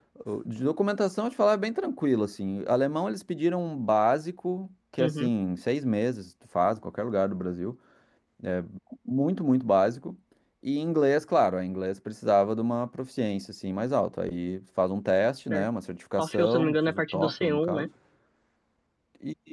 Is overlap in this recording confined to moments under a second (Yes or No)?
No